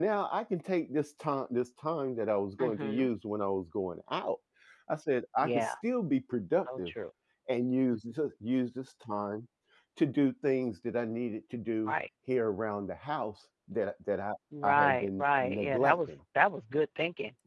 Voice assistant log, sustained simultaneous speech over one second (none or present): present